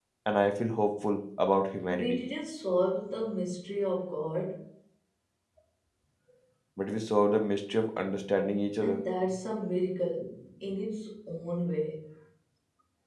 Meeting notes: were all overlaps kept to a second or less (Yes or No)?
Yes